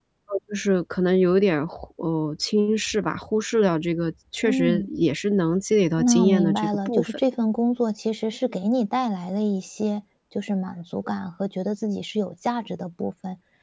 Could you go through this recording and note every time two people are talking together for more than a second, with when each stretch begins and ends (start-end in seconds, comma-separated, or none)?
6.0-7.2